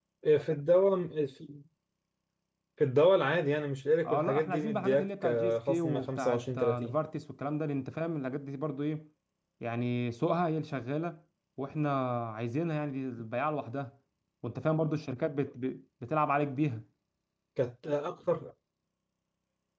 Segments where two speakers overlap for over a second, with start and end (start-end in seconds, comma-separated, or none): 4.0-7.0